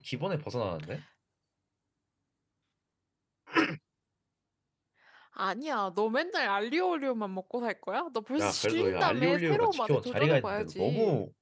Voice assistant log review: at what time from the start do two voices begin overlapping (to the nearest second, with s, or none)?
8 s